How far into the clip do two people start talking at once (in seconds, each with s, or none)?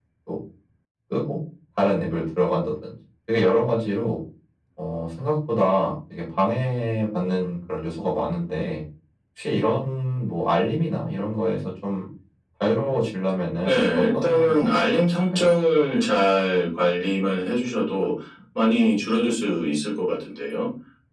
13.6 s